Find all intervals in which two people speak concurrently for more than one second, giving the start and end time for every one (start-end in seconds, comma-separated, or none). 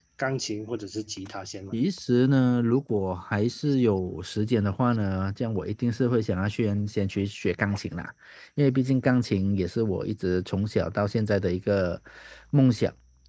none